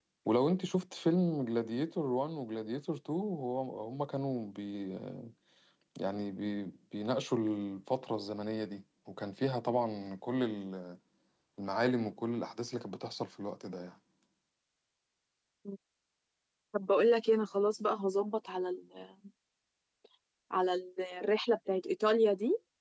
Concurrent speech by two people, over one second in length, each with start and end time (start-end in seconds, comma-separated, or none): none